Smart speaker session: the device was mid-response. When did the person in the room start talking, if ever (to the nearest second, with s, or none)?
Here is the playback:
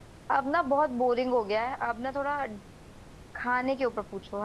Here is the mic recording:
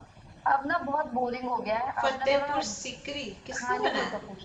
2 s